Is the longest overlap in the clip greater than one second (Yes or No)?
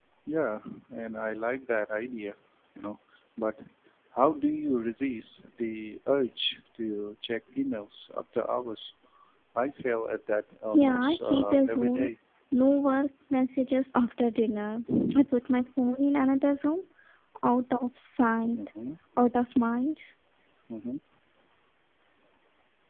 Yes